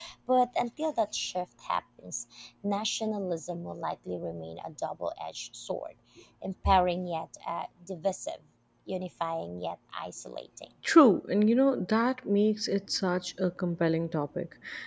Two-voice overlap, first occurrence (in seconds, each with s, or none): none